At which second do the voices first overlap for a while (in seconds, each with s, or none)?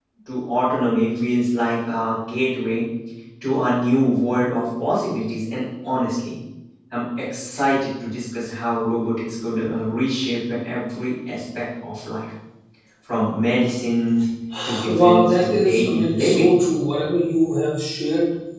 14.9 s